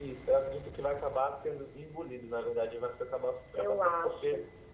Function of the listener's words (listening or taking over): listening